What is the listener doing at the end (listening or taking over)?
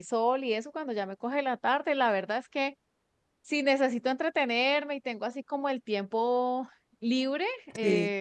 listening